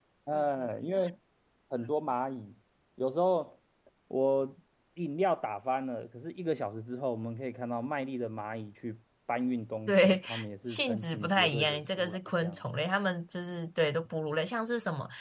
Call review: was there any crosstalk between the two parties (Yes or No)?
Yes